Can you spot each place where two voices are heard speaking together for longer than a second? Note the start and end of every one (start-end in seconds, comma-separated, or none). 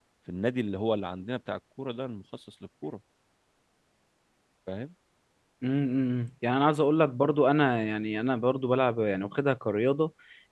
none